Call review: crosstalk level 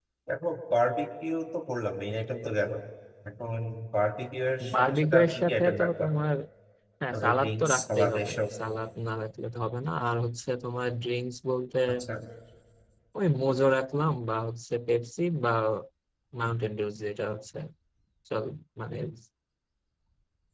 present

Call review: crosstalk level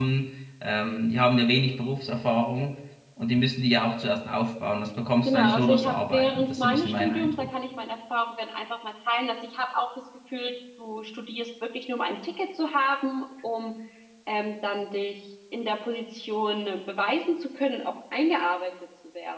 present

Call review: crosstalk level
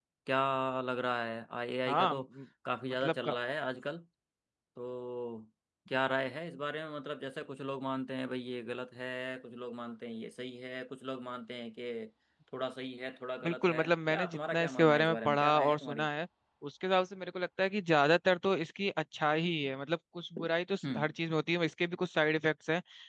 present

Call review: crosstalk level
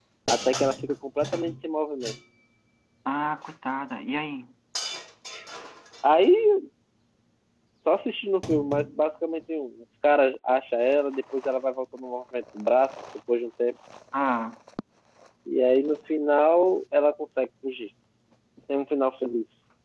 none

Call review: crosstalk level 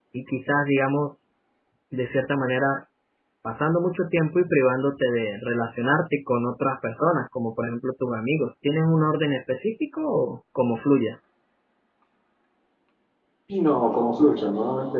none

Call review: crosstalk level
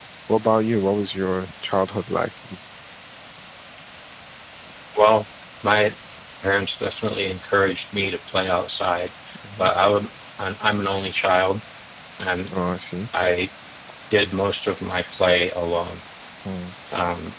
none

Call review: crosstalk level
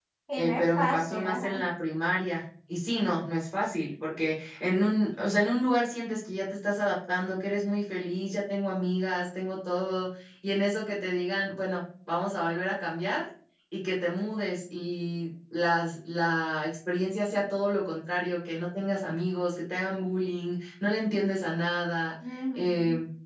present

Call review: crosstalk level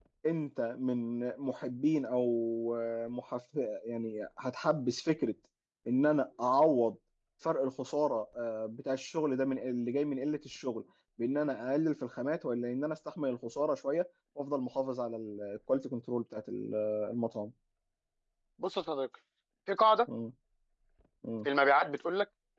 none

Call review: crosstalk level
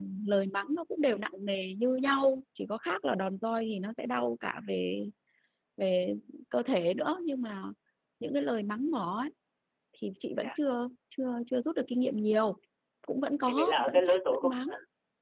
present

